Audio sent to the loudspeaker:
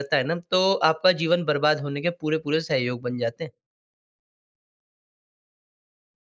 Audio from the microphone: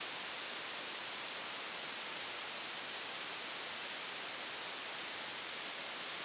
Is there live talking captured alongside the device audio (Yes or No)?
No